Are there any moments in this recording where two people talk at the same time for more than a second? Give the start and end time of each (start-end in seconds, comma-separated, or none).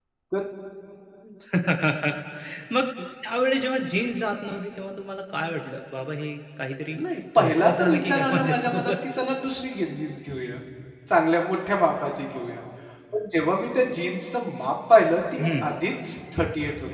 7.4-8.9